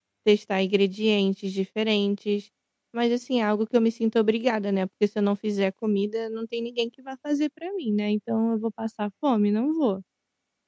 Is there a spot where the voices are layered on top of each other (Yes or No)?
No